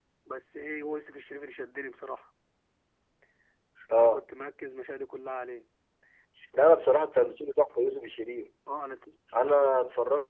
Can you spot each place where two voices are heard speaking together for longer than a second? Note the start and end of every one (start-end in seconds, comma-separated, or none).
none